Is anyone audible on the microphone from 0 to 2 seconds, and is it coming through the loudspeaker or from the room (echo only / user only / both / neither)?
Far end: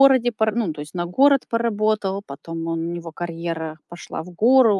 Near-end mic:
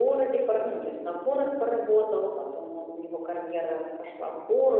echo only